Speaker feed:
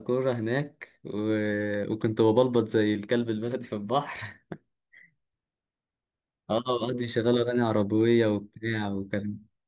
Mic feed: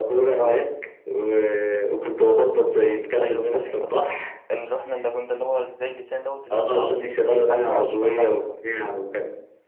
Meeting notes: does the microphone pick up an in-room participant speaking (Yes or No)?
Yes